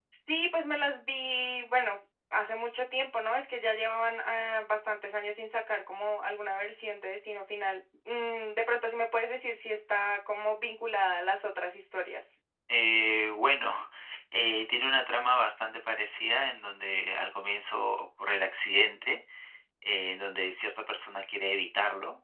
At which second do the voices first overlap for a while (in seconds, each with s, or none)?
none